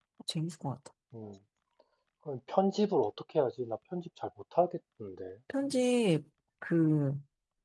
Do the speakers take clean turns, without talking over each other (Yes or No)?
Yes